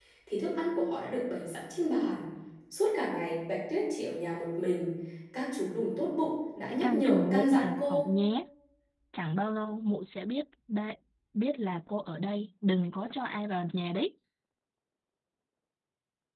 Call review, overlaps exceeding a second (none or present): present